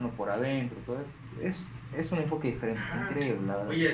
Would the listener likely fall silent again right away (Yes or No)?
No